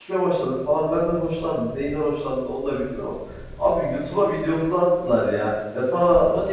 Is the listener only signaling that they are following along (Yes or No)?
Yes